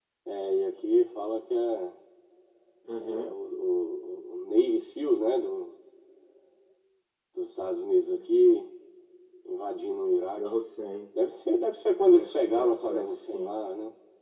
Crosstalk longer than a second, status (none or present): present